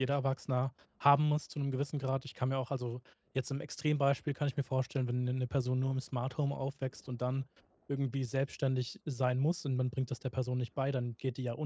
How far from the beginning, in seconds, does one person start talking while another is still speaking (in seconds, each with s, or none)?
none